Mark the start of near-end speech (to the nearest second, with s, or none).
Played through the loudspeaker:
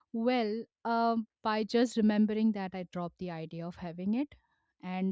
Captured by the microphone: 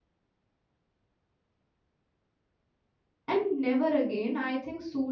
3 s